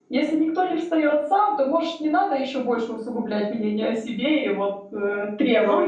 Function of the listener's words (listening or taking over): taking over